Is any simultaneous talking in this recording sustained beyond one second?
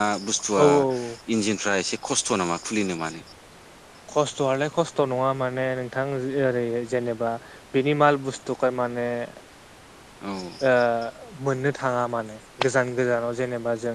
No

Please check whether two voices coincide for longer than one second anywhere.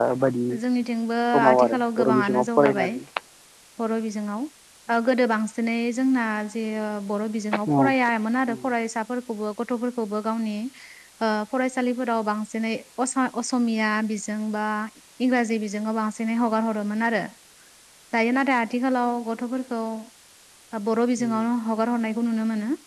Yes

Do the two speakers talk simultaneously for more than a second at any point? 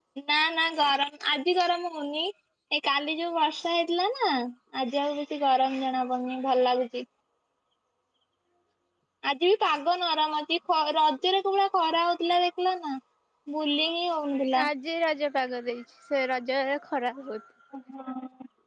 No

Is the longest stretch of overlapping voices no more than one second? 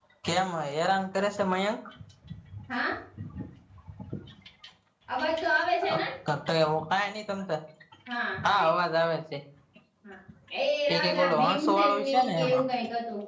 No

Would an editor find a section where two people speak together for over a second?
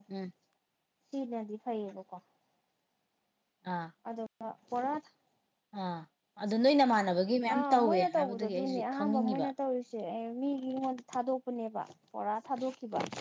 Yes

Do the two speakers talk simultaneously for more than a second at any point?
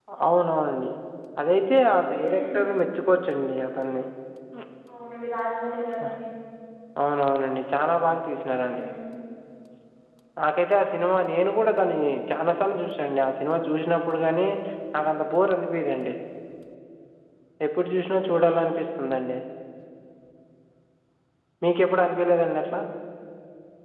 No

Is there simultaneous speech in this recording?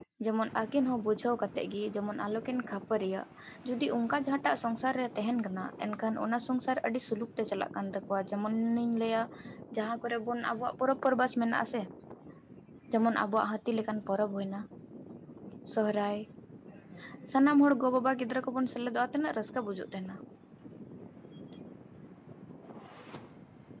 No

